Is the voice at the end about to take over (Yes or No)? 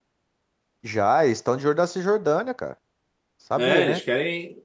Yes